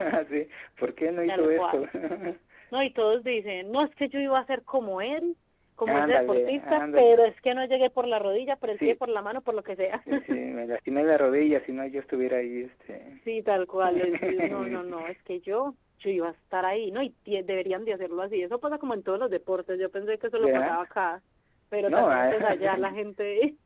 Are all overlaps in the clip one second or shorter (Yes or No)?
No